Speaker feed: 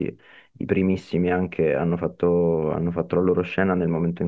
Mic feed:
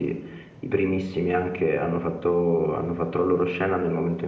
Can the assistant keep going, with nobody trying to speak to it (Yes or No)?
Yes